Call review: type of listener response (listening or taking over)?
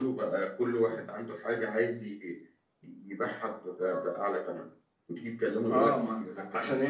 taking over